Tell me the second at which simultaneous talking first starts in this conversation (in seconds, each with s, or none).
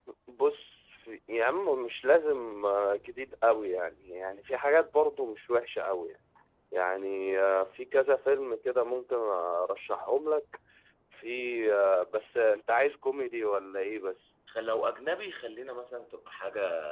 none